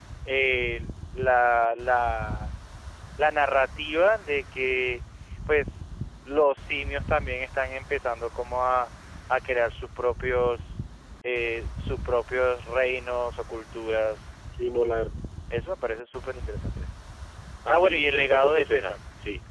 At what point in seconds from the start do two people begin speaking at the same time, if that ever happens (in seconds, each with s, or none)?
17.7 s